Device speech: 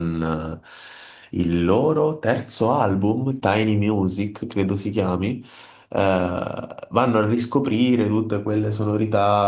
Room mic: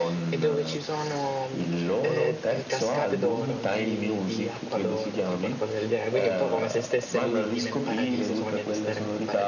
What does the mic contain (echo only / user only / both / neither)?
both